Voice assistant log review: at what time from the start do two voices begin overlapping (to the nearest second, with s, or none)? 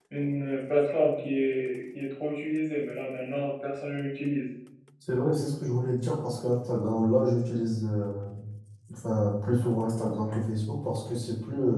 none